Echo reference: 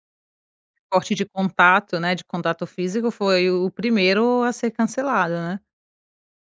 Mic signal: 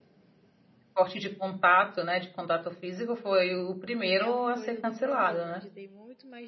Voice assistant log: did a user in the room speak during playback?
Yes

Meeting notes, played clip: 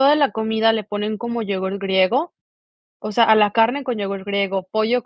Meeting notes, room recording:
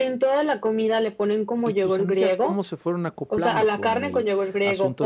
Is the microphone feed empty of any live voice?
No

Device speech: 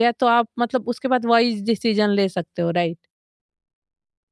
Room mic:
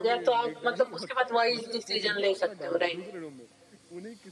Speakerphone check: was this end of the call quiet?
No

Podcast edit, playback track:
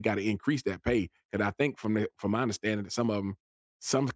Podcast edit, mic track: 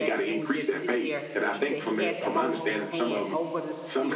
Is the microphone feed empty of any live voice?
No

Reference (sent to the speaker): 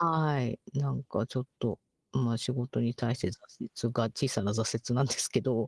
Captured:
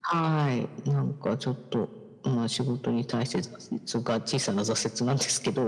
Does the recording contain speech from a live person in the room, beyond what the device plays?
No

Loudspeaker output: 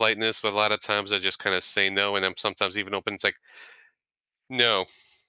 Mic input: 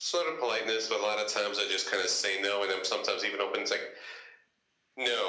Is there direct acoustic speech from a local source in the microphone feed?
No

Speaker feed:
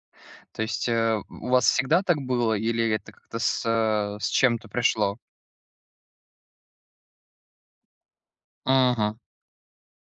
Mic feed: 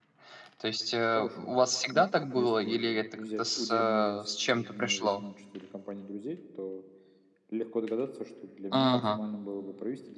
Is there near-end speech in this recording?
Yes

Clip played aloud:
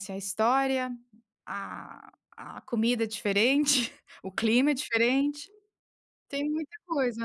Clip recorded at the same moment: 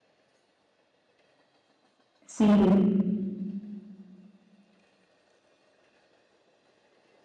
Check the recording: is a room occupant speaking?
Yes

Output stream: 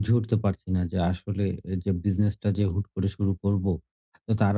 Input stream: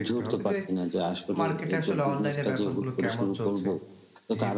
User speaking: Yes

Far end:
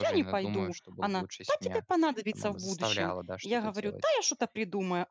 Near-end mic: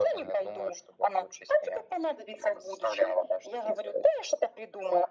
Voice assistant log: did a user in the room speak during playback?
No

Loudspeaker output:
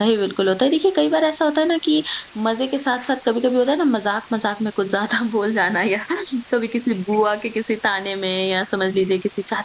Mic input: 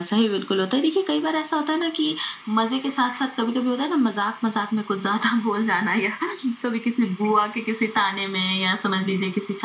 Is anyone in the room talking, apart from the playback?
No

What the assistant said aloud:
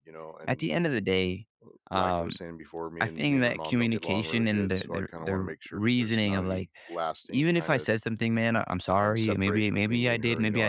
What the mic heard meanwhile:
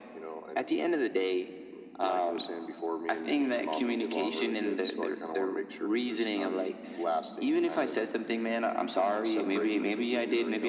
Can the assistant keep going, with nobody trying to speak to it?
Yes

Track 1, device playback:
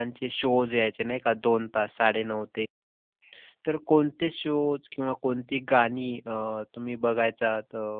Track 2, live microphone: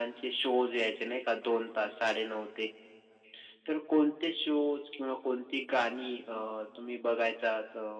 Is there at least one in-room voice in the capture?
No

